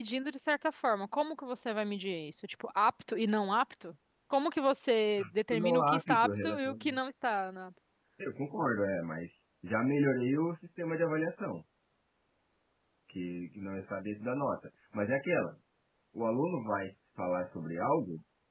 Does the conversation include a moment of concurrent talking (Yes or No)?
Yes